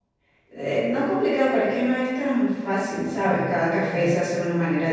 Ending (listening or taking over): listening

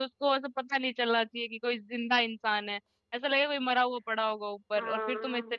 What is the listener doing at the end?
listening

